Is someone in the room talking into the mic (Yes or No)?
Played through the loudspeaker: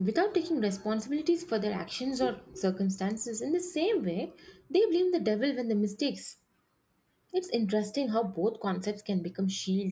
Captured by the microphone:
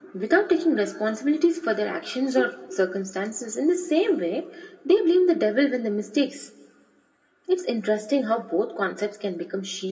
No